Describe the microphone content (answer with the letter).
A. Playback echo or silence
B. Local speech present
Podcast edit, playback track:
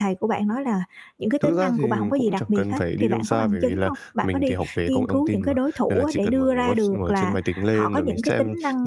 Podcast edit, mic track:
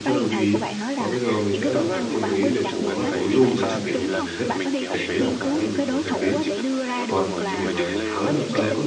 B